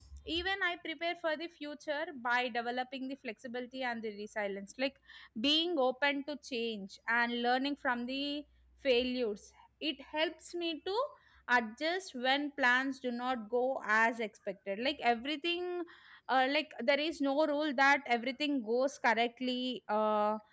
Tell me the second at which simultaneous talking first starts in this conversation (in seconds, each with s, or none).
none